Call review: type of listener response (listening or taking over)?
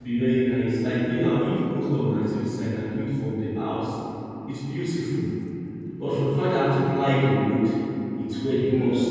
taking over